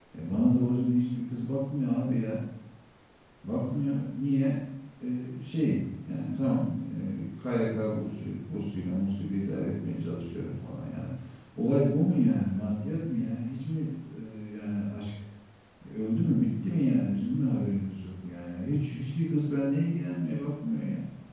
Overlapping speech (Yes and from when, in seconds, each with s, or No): No